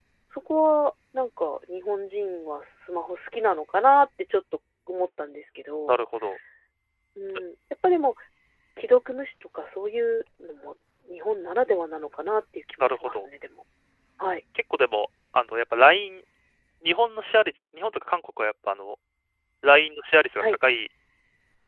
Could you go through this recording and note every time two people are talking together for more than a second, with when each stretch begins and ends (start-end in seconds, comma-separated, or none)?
none